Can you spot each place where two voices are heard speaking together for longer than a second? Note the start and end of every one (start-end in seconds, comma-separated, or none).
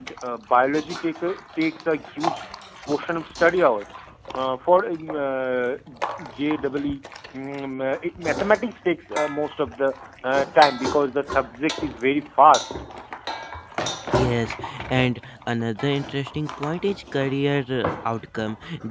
none